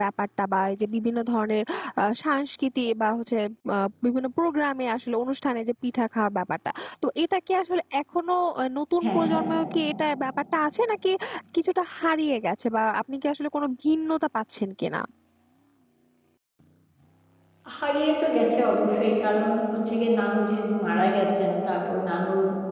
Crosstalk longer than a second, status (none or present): none